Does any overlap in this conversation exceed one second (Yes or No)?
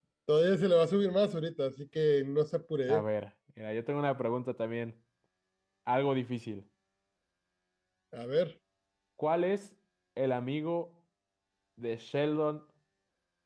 No